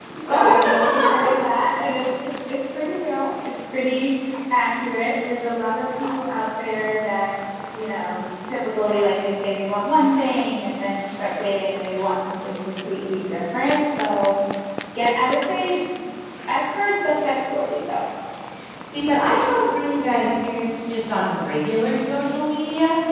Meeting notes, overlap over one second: none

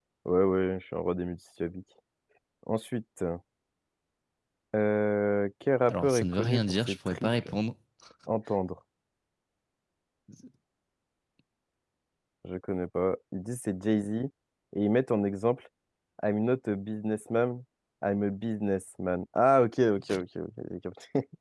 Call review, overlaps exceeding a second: present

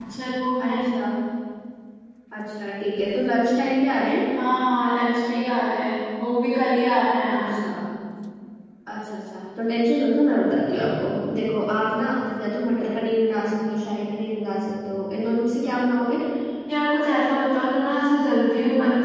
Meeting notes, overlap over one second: none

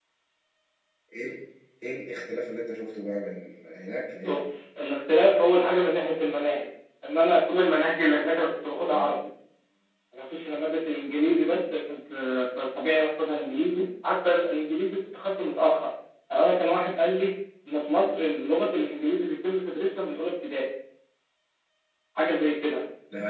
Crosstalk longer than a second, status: none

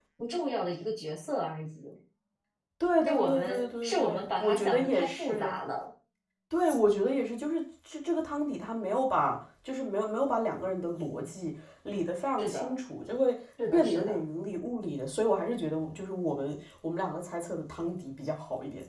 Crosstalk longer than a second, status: present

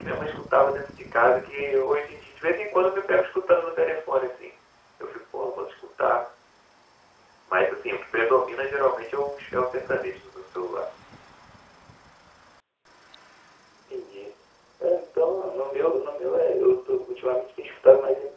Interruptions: none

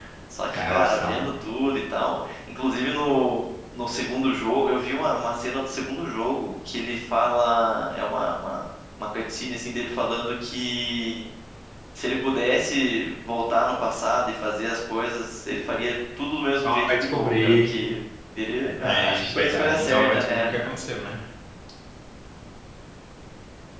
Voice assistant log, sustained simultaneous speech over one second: present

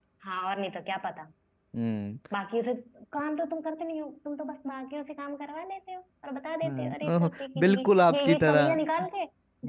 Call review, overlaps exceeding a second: present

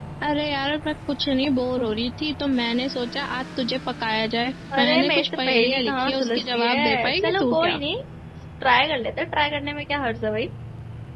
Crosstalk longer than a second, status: present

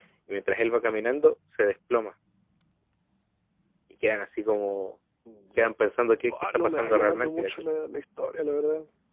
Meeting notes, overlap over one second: present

